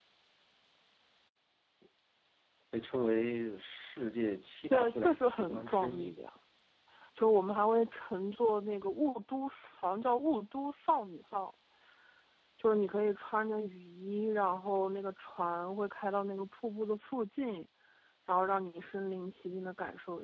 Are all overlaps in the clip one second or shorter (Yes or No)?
No